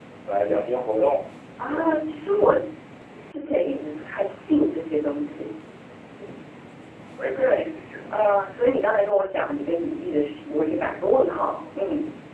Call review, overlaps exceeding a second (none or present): none